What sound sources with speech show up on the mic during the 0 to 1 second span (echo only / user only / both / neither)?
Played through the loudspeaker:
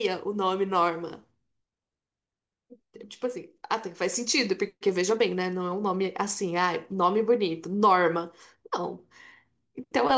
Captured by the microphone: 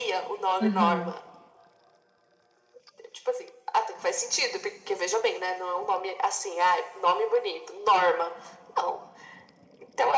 both